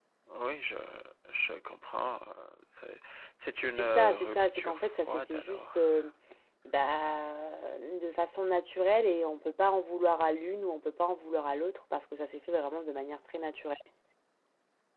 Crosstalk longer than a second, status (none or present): present